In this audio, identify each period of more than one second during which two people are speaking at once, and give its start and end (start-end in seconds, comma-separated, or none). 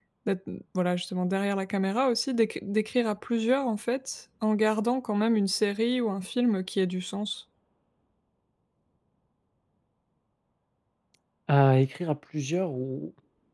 none